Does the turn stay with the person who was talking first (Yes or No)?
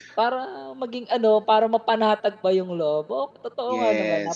No